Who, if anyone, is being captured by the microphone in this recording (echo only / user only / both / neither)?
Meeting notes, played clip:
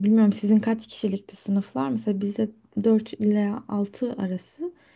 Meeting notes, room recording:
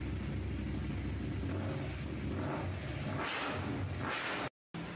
neither